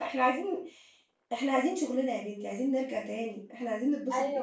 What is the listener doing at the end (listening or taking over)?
taking over